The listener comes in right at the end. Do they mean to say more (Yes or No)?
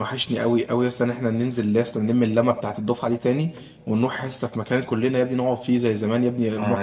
Yes